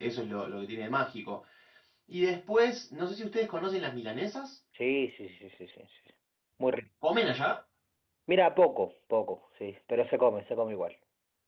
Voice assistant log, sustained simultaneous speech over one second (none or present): none